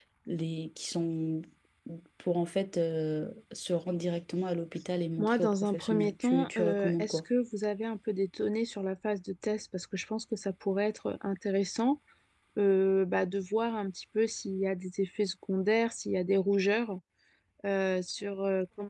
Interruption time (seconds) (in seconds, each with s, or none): 5.2 s